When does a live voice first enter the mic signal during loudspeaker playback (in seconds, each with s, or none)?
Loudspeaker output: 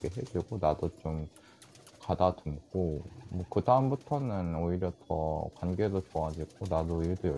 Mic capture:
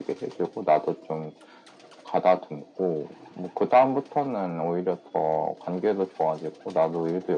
none